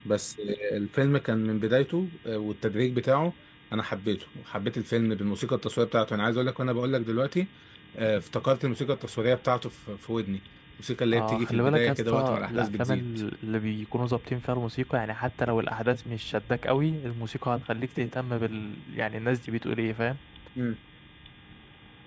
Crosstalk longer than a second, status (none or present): present